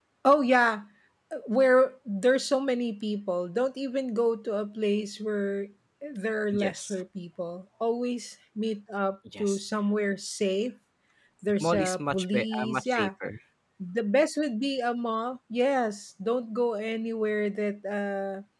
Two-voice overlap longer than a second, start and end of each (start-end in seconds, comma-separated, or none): 11.6-13.1